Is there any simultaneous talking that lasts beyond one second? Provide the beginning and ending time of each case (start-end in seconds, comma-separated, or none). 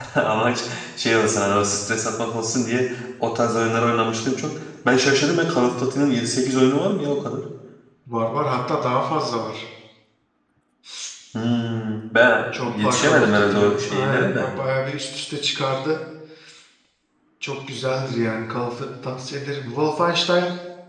12.6-14.4